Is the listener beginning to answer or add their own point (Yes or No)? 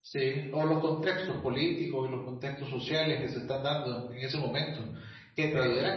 No